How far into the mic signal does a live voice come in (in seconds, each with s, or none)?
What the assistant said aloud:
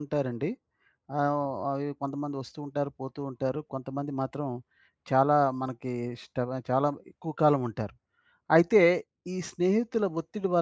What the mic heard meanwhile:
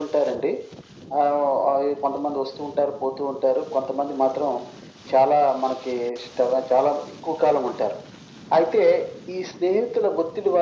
none